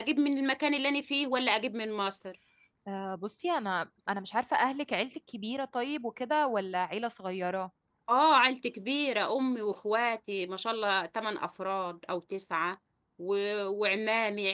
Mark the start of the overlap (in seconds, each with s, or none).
none